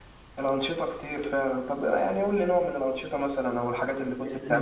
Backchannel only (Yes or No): No